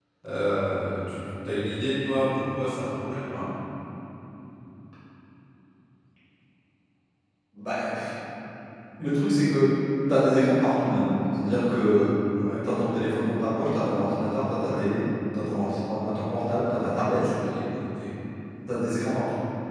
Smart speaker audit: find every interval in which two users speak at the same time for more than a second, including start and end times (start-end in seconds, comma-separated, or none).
none